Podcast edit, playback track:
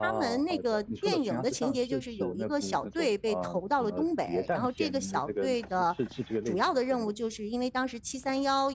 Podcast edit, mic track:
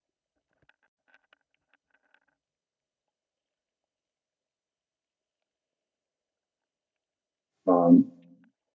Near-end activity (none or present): present